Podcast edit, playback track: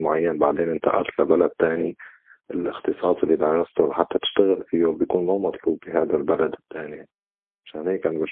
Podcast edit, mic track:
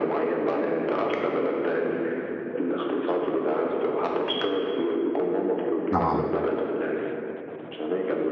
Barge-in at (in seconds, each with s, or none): 5.9 s